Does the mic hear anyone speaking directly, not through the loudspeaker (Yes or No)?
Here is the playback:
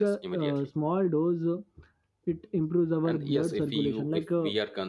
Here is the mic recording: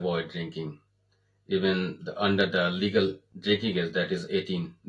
Yes